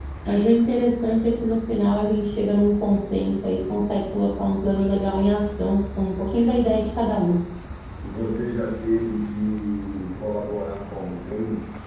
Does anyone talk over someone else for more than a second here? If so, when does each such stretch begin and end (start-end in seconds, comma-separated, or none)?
none